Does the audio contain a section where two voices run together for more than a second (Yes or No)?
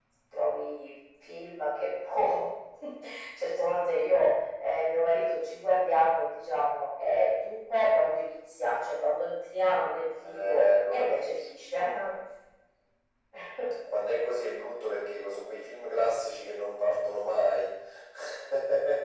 Yes